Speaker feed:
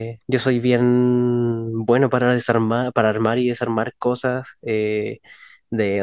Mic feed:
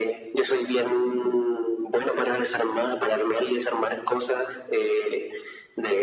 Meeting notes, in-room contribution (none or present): none